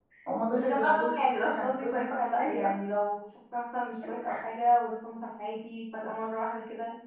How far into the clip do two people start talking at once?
1 s

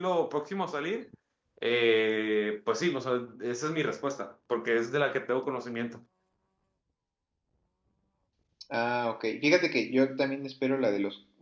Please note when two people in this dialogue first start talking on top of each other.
none

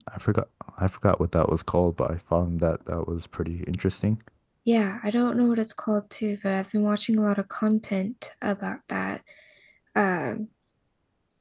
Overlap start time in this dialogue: none

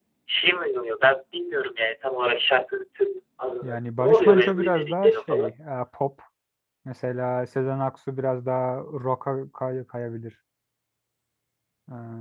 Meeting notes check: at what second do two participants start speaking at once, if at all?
4 s

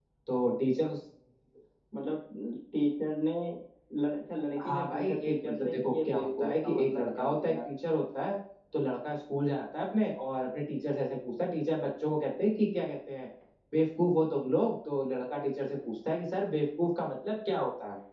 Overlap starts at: 5 s

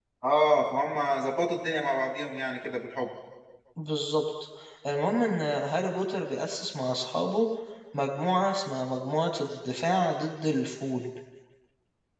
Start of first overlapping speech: none

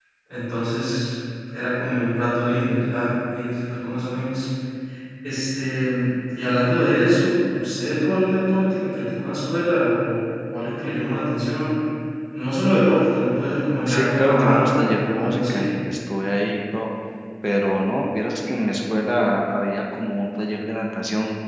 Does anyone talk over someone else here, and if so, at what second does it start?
14 s

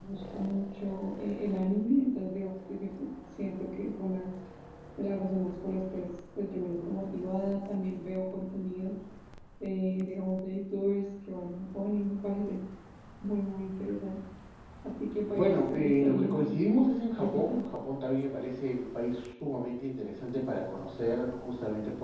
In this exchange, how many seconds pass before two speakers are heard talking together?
15 s

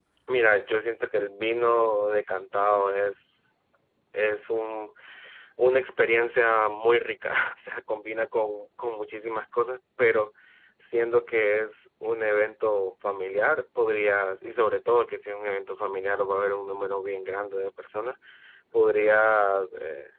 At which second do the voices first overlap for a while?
none

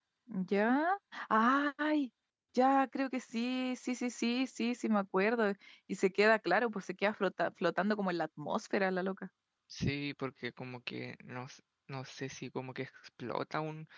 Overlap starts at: none

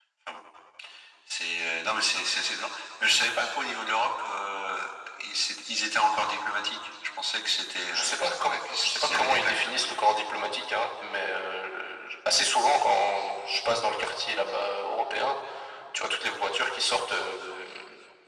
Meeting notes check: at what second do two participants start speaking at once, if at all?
8 s

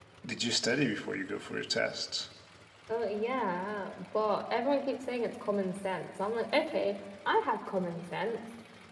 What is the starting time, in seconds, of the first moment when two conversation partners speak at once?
none

